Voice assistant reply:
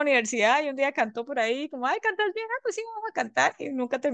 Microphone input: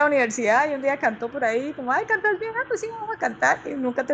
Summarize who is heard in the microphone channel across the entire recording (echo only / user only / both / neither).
echo only